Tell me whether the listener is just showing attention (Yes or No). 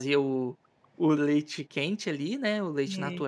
Yes